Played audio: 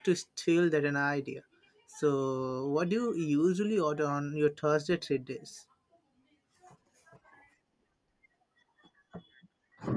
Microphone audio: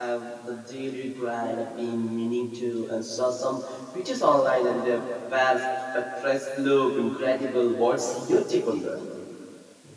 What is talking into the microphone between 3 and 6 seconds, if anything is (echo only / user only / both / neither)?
user only